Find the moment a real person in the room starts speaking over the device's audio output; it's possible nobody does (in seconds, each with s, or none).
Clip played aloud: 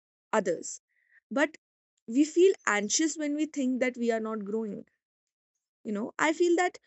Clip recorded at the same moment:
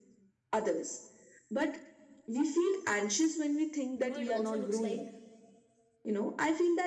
4.0 s